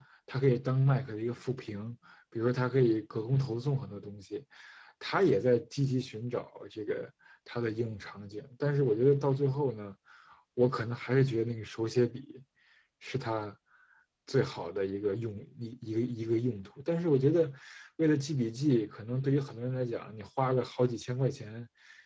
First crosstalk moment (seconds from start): none

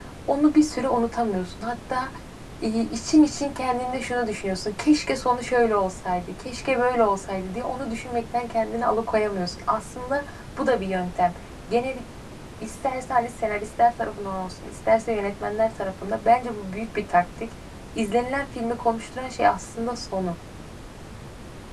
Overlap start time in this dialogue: none

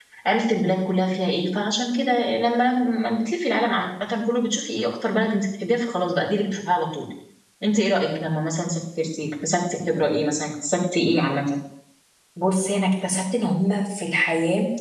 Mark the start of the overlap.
none

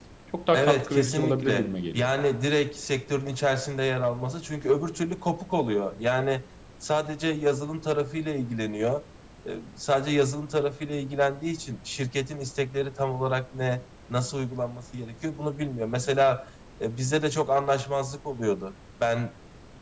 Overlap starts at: 1 s

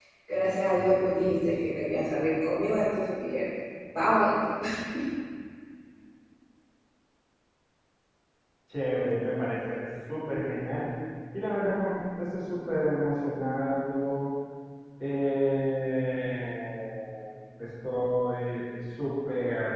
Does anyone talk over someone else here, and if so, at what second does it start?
none

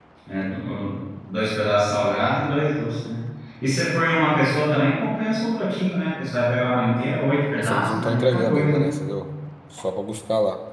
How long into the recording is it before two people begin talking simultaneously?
8 s

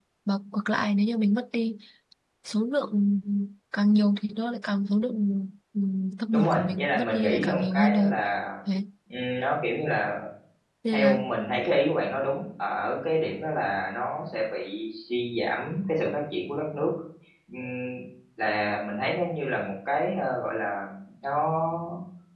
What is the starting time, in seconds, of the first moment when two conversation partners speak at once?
6 s

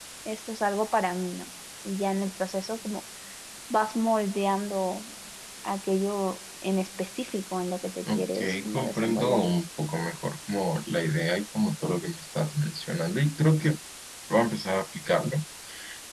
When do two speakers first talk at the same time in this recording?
8 s

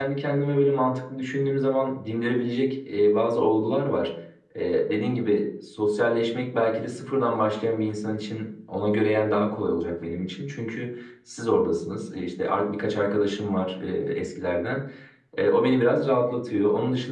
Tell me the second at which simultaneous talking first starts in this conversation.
none

